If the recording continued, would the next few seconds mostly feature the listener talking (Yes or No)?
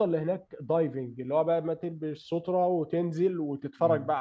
No